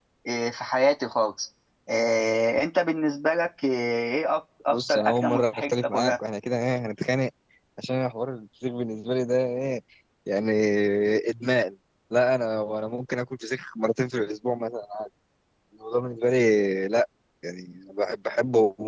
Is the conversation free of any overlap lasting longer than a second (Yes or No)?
No